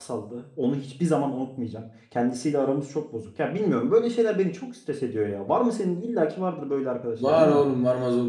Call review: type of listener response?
taking over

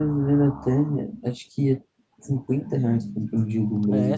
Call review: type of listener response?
taking over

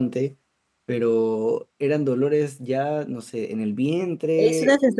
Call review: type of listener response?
taking over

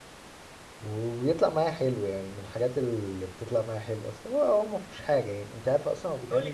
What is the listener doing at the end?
taking over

